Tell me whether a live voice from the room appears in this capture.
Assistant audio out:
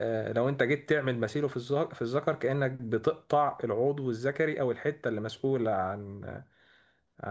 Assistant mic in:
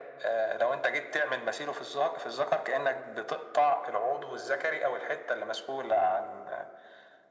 No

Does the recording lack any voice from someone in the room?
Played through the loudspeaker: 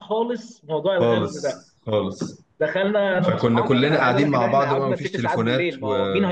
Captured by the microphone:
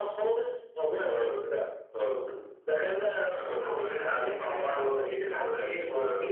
Yes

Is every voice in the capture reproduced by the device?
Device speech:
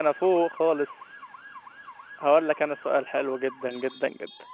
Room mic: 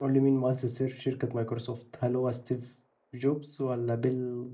No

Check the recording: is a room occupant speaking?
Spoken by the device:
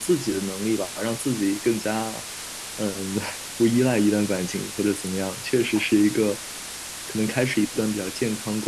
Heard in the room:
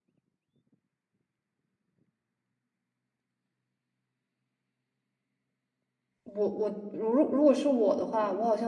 Yes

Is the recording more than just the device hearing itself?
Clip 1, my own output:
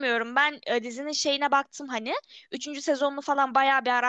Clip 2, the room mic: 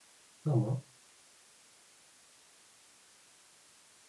Yes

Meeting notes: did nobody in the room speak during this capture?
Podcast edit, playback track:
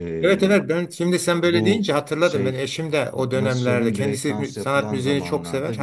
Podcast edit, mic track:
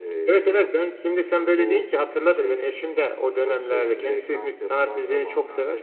Yes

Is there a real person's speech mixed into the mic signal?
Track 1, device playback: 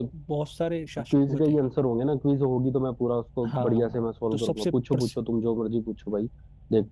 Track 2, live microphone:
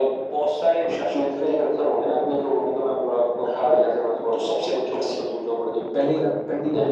Yes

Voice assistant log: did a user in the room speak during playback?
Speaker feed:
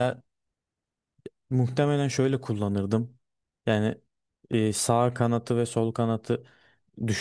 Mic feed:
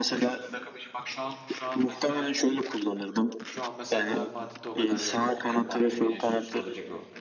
Yes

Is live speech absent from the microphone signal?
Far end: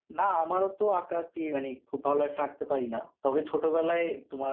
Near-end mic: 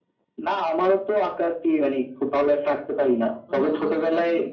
No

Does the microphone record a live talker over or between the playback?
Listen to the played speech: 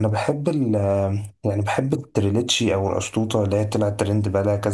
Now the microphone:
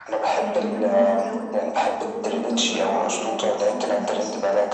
Yes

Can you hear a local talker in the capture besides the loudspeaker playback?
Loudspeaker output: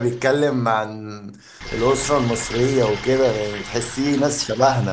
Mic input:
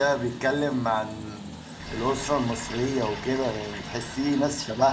No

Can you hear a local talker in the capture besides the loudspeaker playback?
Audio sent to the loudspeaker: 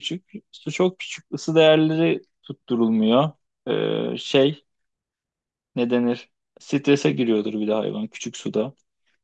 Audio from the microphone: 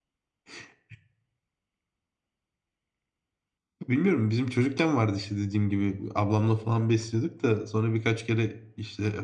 Yes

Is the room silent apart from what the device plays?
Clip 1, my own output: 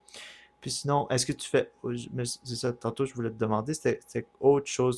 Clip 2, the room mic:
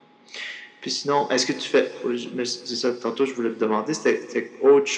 Yes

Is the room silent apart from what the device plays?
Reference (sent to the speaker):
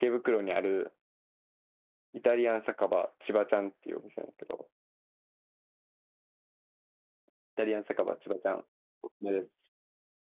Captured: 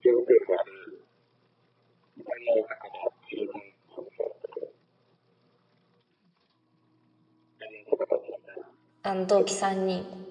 No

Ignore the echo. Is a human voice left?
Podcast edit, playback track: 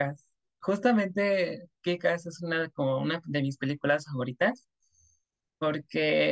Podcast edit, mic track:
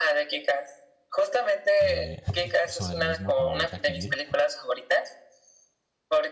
Yes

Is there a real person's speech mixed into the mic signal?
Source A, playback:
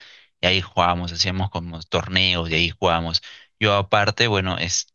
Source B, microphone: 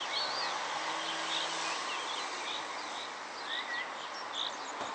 No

